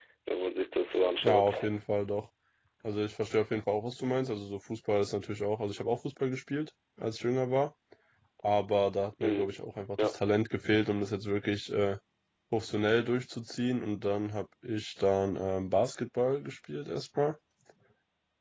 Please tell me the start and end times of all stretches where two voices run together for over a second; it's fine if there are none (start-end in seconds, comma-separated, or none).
none